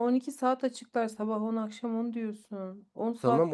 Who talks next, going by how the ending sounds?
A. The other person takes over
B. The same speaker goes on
A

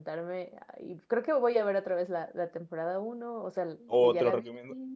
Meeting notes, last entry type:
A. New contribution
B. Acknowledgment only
A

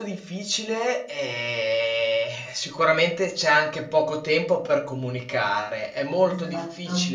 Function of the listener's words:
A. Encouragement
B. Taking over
A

